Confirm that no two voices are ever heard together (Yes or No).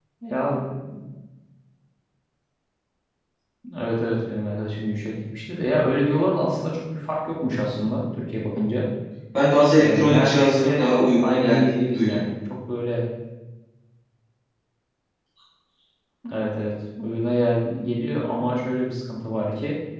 No